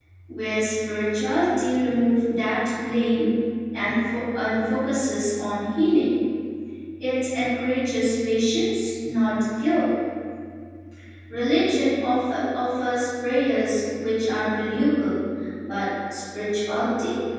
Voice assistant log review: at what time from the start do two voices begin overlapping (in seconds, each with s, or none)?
none